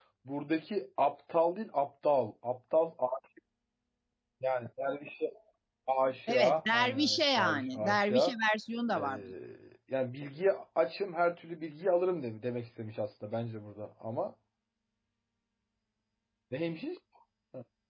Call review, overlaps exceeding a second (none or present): present